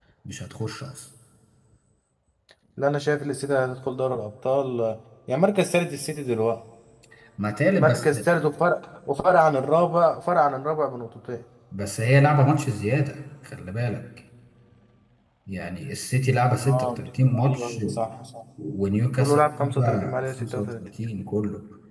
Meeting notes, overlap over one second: present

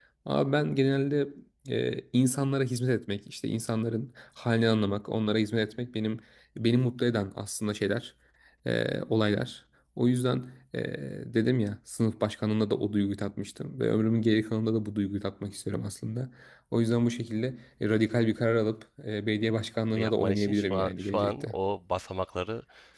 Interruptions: present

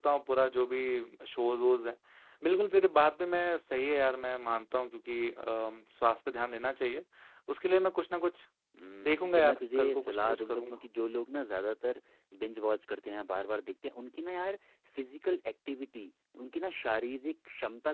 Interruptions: present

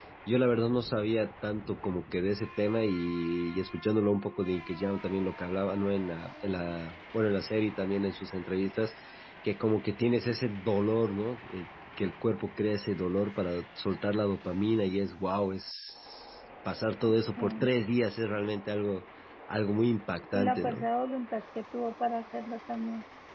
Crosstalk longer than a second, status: none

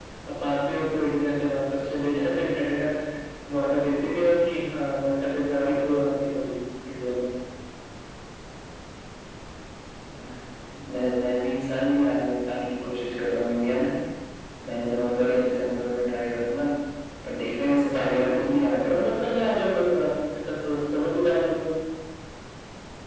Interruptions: present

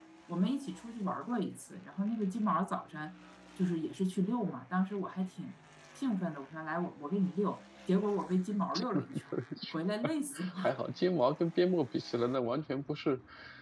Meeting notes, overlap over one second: none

